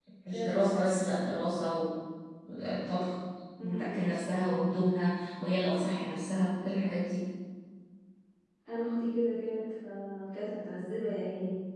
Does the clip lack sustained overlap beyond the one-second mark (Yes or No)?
Yes